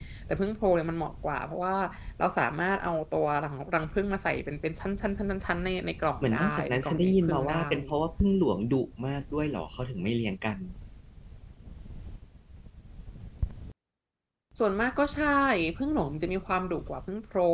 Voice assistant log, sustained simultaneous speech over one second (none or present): present